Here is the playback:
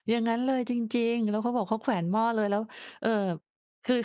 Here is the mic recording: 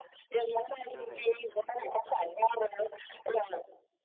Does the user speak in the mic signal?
Yes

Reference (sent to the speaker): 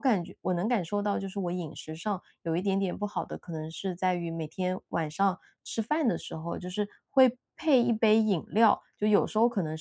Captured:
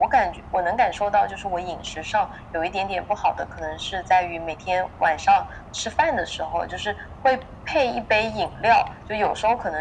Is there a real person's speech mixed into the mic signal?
No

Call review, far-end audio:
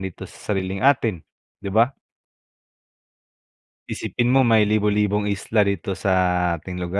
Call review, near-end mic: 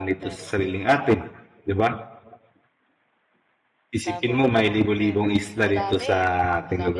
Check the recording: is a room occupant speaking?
Yes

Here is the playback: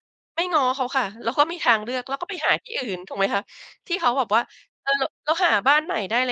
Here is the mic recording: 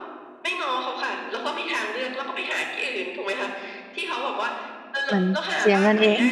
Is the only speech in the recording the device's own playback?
No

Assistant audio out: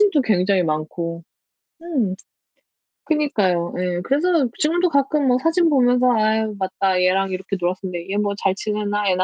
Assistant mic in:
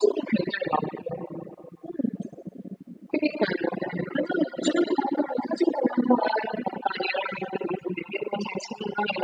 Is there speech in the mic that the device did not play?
No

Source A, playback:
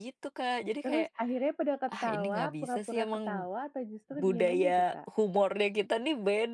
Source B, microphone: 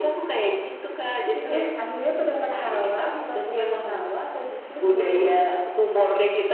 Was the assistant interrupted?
Yes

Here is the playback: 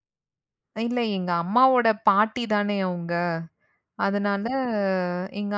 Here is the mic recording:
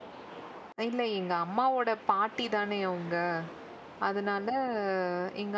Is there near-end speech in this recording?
No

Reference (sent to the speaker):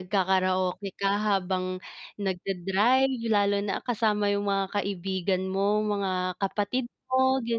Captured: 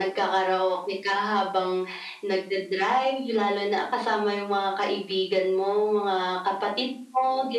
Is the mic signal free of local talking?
Yes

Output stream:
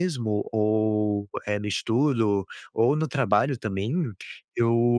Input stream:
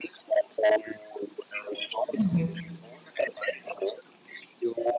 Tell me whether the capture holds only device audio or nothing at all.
No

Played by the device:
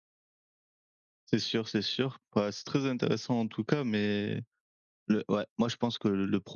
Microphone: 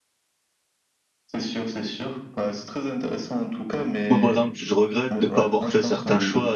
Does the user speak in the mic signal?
Yes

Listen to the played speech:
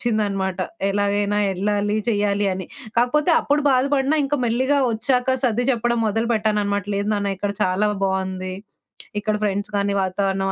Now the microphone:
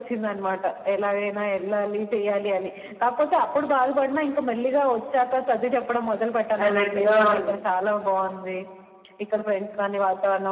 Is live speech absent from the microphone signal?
No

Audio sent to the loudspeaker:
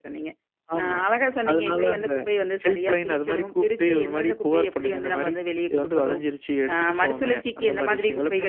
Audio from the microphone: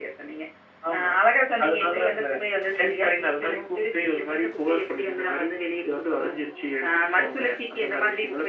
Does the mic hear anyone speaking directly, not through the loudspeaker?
No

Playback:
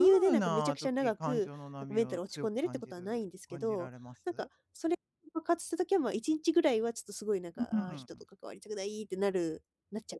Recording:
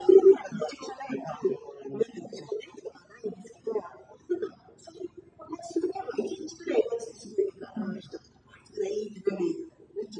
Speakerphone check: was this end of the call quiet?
Yes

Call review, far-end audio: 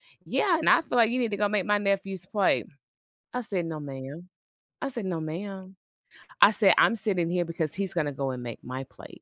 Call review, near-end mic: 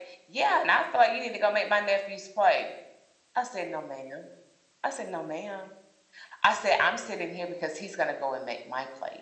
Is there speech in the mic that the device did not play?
No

